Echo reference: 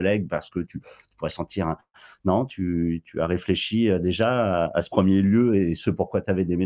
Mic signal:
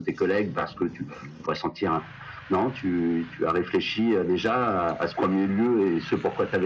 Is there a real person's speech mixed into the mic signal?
No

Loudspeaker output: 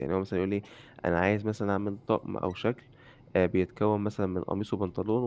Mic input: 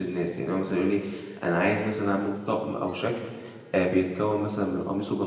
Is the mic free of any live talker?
Yes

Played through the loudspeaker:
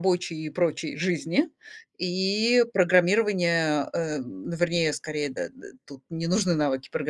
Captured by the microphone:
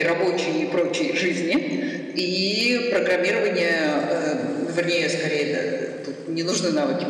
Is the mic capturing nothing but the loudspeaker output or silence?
Yes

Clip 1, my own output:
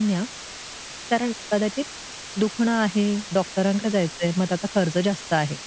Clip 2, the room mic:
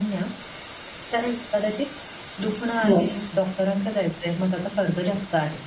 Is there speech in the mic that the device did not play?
Yes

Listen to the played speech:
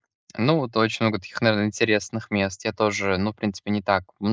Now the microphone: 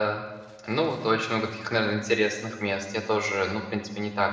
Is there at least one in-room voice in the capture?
No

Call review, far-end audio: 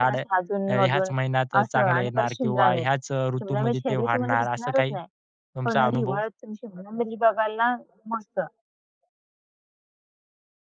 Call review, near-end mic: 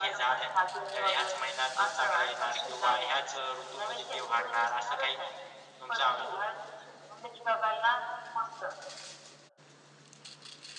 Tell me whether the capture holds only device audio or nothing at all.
Yes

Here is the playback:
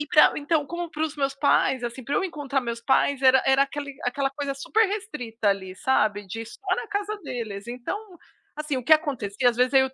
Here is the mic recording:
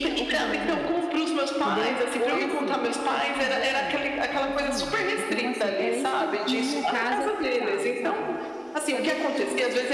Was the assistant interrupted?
Yes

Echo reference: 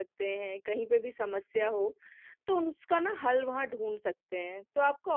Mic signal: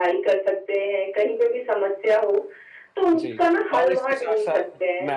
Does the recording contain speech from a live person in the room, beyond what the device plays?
Yes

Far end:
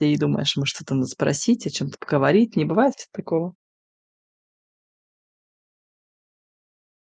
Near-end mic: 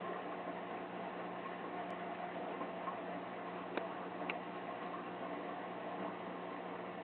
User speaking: No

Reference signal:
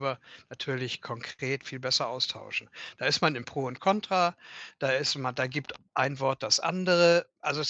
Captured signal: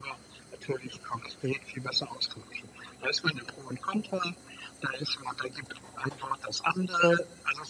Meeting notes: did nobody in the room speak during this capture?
Yes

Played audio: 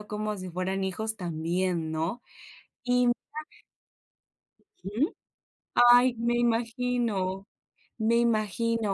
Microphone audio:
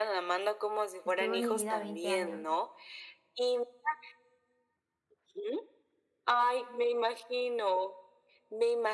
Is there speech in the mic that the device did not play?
Yes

